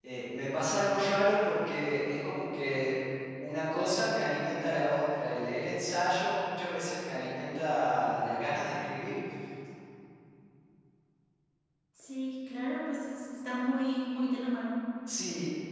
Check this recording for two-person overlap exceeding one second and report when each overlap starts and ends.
none

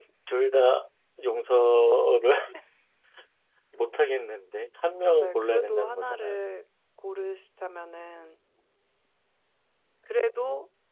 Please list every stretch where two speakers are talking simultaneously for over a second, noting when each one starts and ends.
5.2-6.4

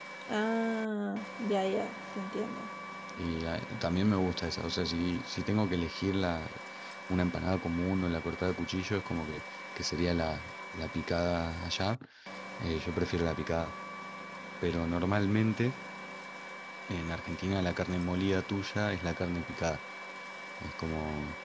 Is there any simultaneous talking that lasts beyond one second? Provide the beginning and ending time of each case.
none

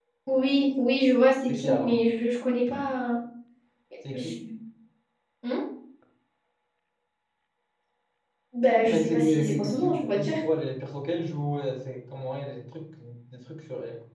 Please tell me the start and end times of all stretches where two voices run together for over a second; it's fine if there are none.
8.8-10.3

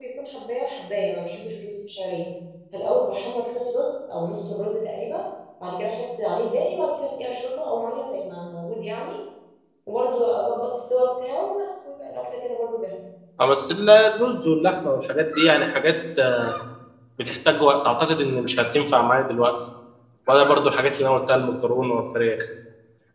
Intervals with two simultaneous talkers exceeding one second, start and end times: none

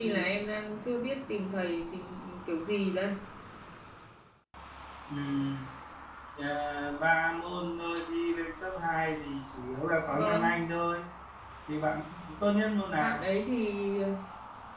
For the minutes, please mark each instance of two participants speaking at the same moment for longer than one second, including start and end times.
none

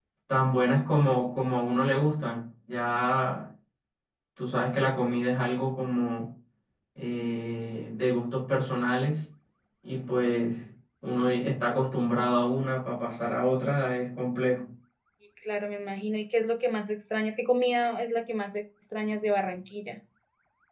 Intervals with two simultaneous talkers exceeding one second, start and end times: none

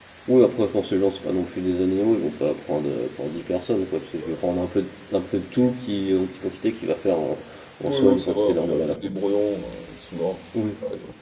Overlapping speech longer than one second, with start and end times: 7.8-9.1

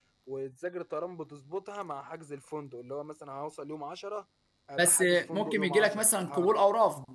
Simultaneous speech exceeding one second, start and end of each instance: 4.8-6.6

